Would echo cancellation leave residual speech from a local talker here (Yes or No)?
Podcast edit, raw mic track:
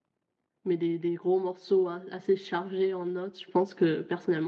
Yes